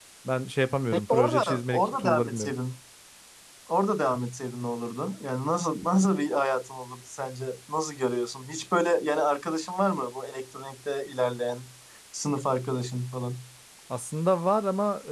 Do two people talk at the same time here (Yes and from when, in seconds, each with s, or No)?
Yes, from 0.9 s